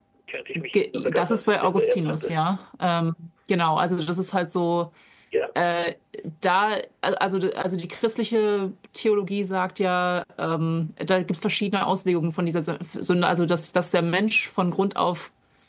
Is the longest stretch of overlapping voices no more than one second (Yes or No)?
No